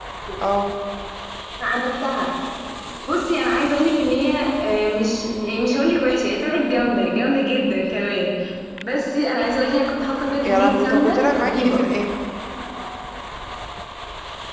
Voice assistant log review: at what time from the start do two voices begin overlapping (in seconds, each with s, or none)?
10.4 s